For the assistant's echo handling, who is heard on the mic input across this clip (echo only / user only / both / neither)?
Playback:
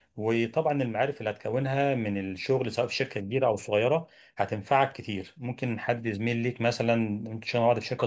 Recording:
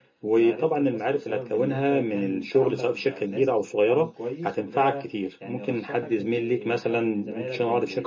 both